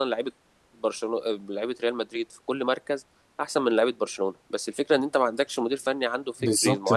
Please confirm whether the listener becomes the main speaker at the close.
Yes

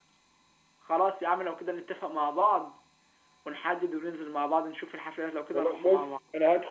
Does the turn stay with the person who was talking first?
No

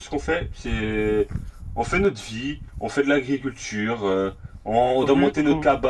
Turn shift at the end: No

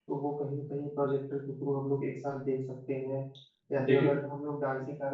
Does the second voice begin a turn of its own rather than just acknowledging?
No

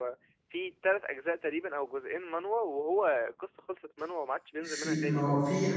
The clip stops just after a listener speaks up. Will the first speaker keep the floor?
No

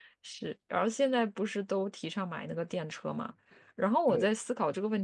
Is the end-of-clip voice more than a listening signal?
No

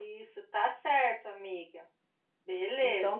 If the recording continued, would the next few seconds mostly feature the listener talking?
Yes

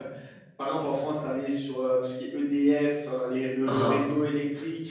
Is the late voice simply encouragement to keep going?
Yes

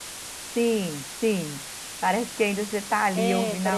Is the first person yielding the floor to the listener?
Yes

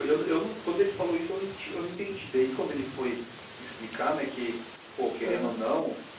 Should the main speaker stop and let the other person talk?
No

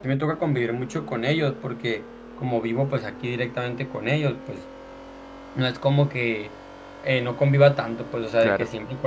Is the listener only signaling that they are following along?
Yes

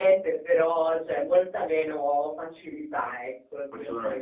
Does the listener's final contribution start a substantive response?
Yes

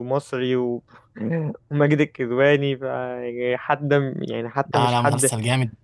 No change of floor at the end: No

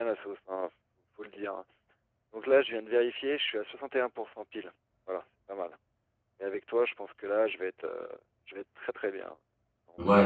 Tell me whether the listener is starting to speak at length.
Yes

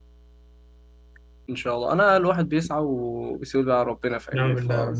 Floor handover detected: Yes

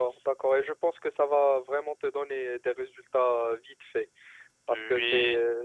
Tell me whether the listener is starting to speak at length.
No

